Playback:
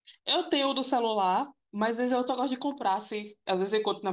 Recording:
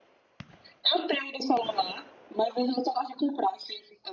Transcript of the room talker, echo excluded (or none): none